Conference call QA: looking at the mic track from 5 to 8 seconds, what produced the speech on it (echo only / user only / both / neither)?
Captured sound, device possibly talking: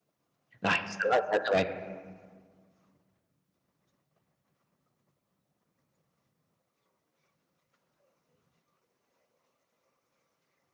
neither